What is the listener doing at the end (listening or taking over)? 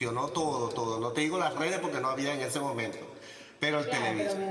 taking over